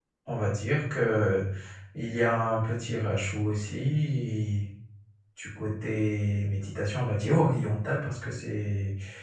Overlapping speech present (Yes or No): No